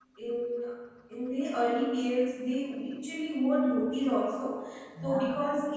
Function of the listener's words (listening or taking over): listening